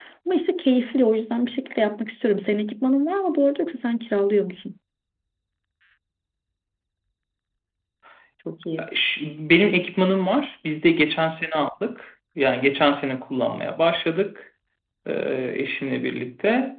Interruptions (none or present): none